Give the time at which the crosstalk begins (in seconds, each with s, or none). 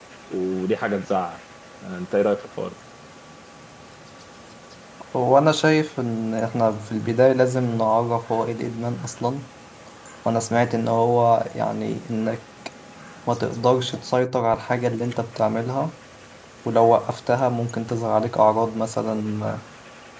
none